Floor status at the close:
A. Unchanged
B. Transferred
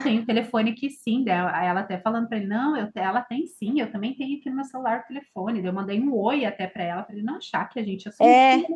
B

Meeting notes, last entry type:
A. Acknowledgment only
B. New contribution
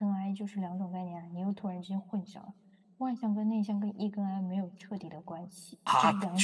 B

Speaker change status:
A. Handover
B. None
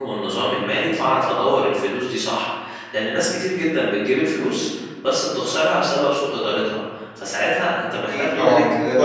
A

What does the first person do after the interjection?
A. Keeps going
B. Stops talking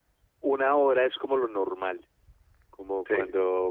A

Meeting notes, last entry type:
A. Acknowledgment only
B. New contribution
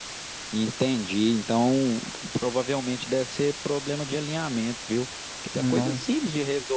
A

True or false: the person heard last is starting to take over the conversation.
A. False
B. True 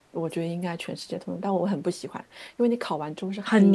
A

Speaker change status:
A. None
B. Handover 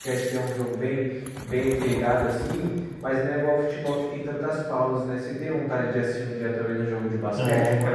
B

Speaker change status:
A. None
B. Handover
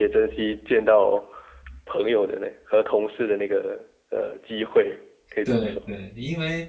B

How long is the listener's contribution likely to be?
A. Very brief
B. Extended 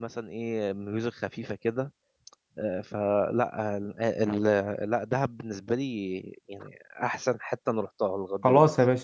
B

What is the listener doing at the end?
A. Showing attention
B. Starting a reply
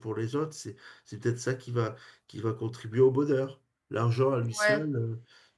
A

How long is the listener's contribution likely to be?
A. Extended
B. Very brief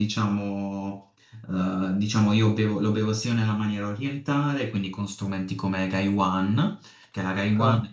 B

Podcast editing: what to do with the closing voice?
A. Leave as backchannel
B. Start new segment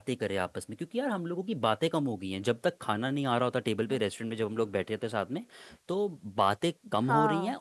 A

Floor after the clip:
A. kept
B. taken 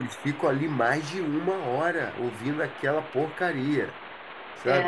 B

